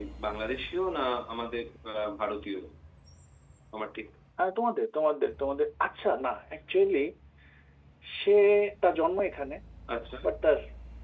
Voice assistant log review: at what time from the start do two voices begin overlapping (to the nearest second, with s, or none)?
none